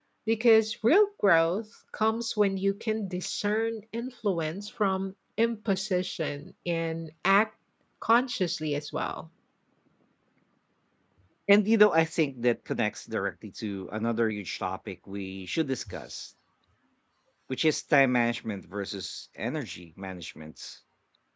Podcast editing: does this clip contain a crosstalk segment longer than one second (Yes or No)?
No